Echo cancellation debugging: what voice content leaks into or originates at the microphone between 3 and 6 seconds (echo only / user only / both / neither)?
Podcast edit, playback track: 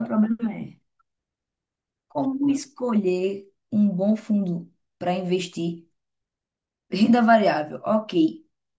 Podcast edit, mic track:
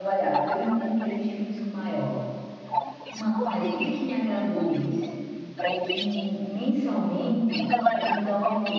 both